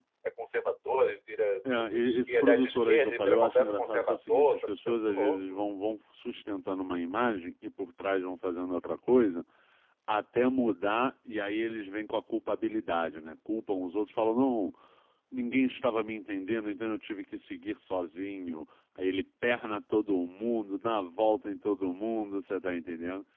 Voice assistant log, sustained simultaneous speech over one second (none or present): present